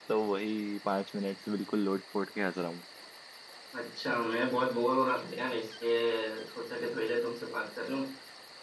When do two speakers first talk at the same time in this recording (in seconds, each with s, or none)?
none